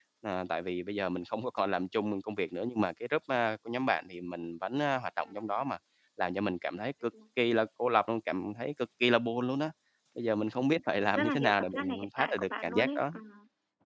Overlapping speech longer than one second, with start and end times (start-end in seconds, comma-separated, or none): 11.0-13.0